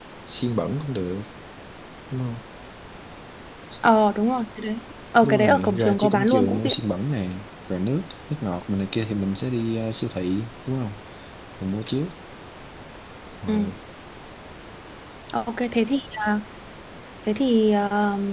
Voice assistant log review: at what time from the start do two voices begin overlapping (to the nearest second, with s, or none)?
5 s